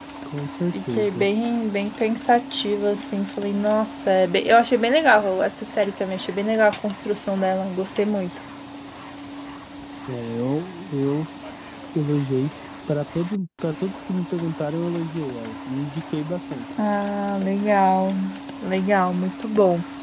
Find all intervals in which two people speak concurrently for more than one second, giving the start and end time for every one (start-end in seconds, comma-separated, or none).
none